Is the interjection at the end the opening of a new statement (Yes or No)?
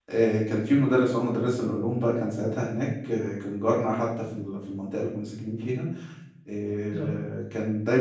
No